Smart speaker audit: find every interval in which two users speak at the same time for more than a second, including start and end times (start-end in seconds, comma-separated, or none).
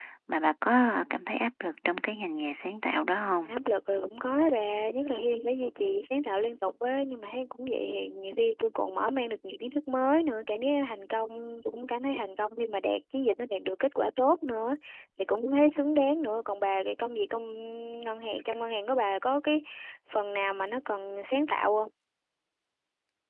none